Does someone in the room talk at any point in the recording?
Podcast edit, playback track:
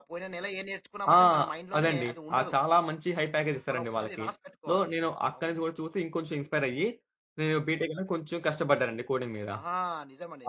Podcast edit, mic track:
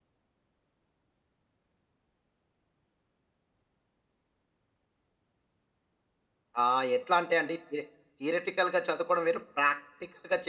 Yes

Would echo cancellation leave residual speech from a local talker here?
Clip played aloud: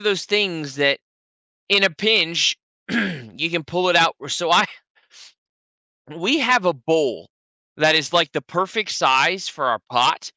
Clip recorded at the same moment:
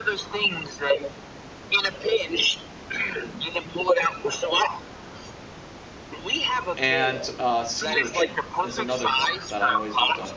Yes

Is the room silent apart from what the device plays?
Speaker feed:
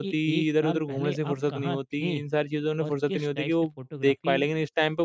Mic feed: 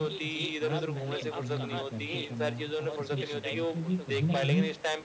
No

